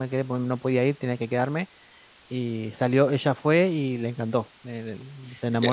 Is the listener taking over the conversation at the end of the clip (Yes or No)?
Yes